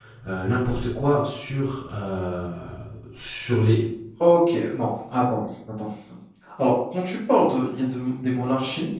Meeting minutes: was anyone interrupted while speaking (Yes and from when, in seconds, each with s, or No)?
No